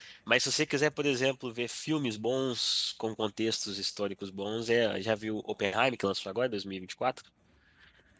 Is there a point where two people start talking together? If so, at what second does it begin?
none

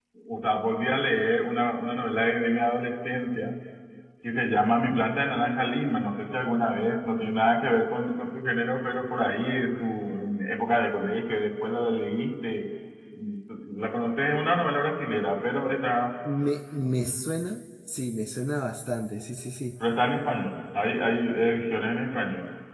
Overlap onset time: none

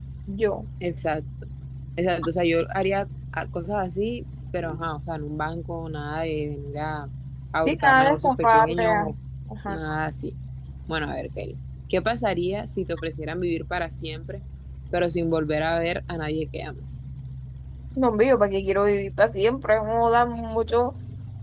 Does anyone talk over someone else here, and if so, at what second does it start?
7.7 s

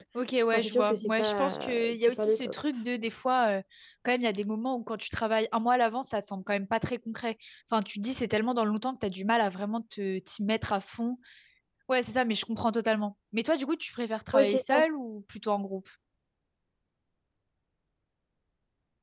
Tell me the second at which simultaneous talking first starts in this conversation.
0.5 s

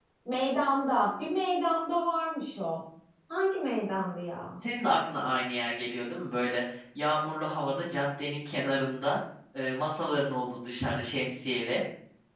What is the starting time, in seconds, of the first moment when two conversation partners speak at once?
none

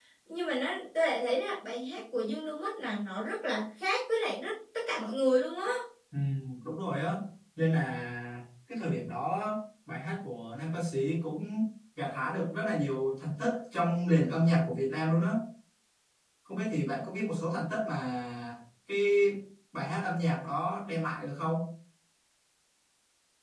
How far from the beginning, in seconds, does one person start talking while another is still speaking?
none

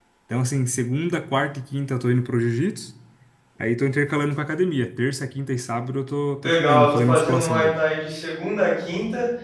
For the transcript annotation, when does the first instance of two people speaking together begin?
6.4 s

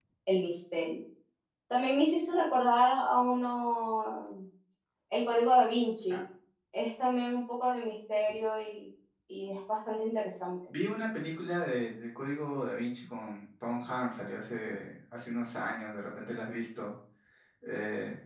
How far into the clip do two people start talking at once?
none

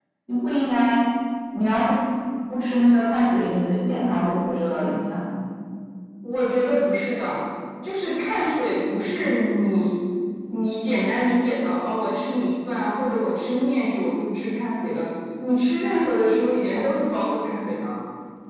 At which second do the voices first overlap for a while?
none

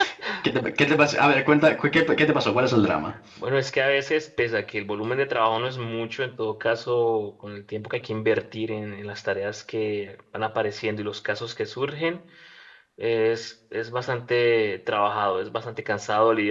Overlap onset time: none

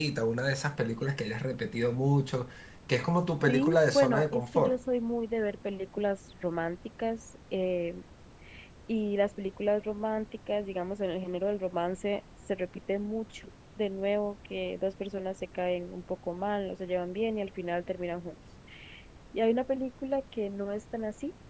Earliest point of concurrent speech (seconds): 3.5 s

